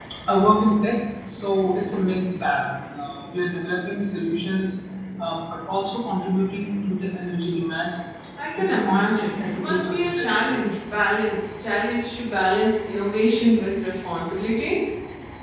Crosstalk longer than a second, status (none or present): present